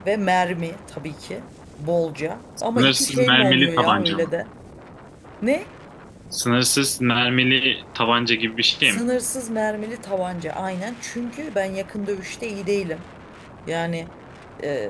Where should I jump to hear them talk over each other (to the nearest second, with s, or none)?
3 s